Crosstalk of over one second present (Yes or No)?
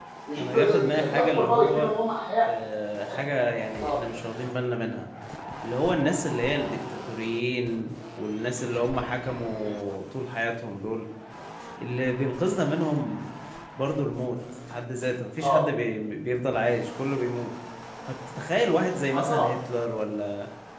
Yes